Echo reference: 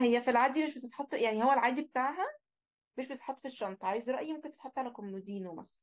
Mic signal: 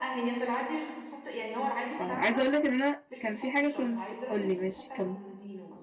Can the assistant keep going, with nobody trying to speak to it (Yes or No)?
No